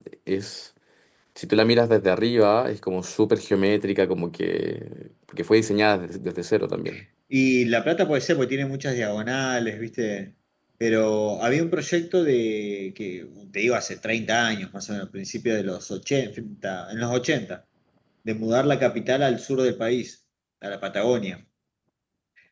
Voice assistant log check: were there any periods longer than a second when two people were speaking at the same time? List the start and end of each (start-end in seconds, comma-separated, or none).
none